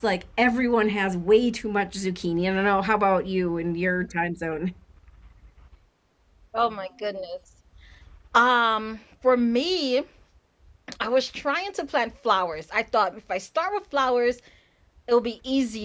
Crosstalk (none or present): none